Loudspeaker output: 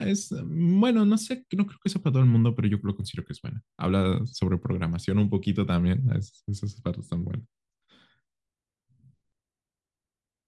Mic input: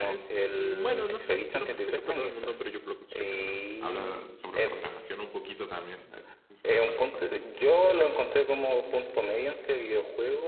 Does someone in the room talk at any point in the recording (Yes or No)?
Yes